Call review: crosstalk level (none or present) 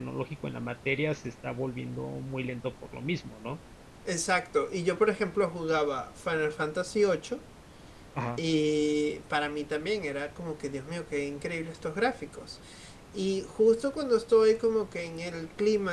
none